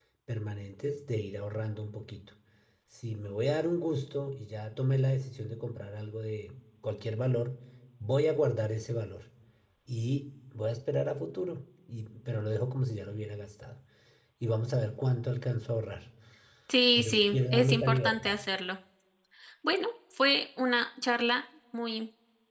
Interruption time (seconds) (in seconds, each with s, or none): 16.9 s